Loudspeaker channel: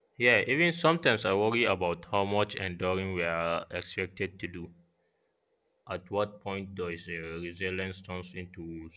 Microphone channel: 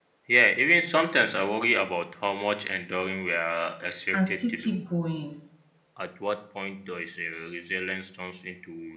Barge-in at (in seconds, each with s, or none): 4.1 s